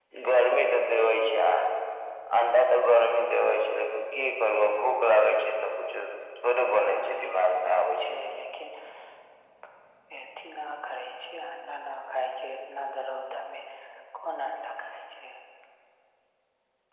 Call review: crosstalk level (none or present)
present